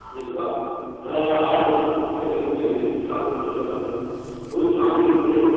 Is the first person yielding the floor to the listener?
No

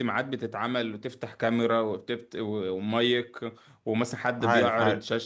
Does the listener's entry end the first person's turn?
No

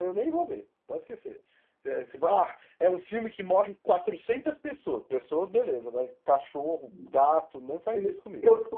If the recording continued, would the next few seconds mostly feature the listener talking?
Yes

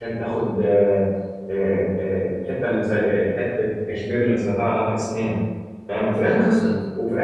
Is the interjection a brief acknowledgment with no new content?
Yes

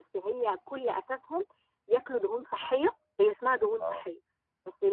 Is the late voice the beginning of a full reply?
No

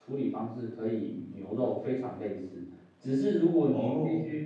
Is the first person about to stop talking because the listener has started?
No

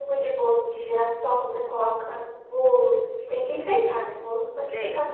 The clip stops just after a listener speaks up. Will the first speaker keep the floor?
No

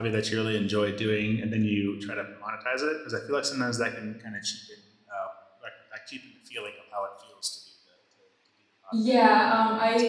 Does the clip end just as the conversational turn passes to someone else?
Yes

